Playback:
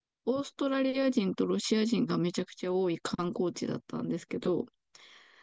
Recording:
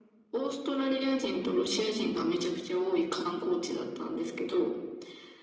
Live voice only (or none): none